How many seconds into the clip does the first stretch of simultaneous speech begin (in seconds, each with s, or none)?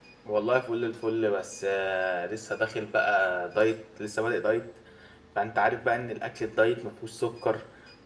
none